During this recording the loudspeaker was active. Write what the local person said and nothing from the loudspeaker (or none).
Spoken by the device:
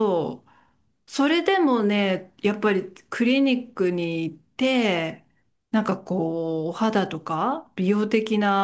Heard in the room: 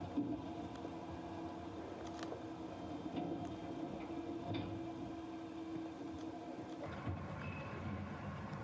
none